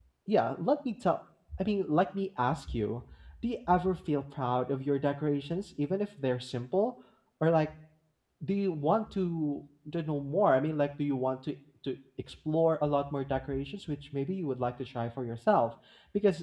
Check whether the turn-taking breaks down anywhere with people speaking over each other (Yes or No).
No